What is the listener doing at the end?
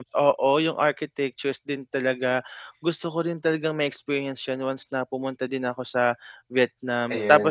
listening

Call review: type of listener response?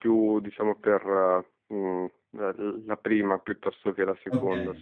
taking over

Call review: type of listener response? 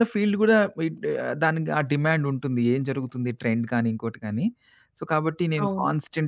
listening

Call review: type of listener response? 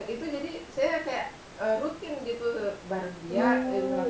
listening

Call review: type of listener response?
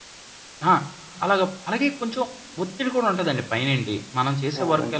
listening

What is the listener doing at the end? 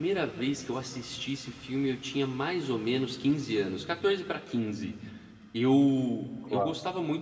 listening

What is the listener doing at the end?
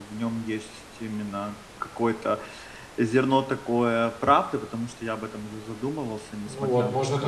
taking over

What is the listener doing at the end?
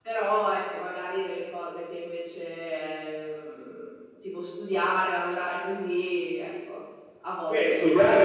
taking over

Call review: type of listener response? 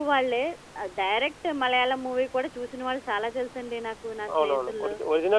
taking over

